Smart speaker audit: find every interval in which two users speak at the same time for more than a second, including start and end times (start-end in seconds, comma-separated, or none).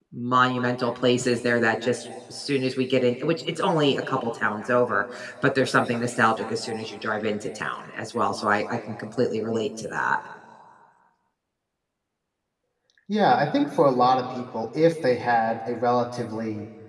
none